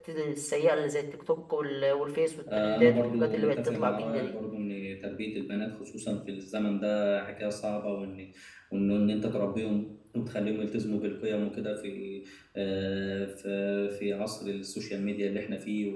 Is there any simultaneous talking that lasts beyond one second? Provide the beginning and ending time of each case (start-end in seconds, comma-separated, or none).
2.5-4.3